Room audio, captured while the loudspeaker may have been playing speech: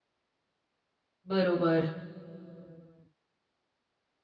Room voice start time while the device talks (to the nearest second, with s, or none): 1 s